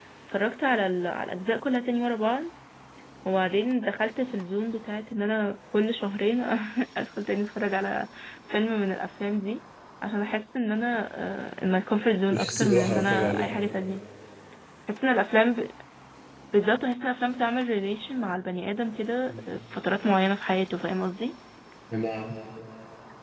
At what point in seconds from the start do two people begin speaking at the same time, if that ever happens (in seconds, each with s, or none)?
12.3 s